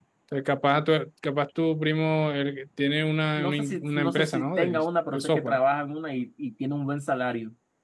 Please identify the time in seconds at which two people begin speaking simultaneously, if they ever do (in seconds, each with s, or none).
3.4 s